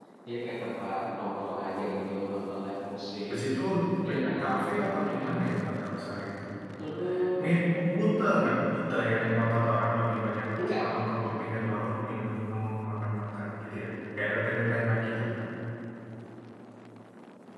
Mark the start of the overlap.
4.1 s

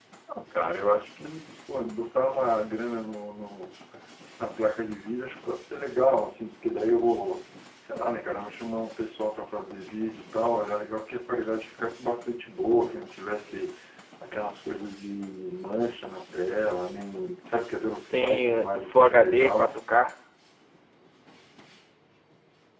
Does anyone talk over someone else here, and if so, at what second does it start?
18.0 s

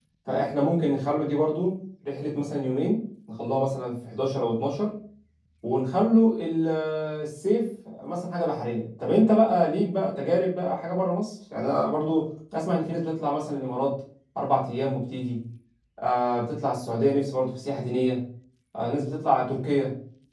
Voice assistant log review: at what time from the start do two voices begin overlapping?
none

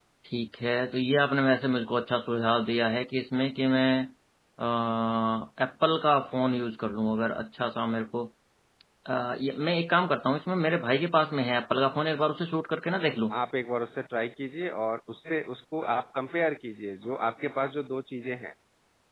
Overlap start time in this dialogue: none

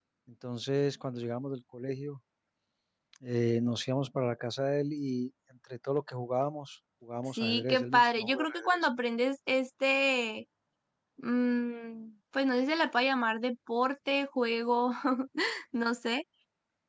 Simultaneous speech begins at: 7.4 s

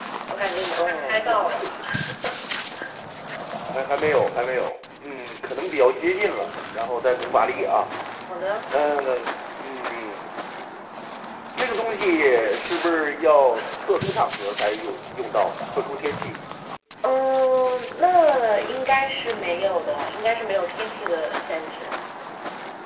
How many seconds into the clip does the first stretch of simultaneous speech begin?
0.6 s

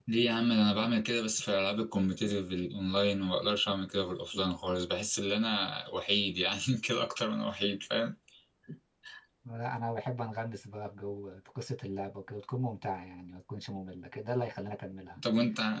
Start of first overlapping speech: none

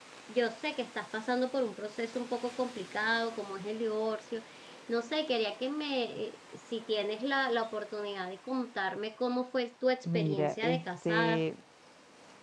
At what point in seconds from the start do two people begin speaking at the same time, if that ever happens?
10.0 s

